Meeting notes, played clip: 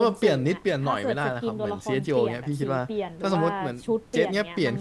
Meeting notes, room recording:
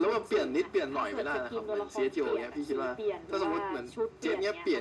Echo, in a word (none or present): present